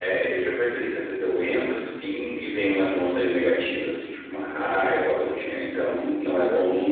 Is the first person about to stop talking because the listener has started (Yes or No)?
No